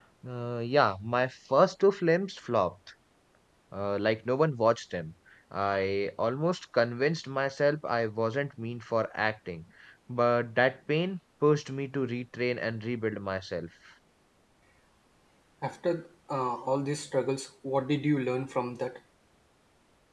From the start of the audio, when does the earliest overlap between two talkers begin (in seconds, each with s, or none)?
none